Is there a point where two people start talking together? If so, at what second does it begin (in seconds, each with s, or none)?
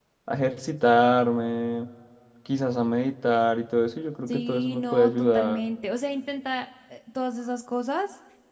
4.3 s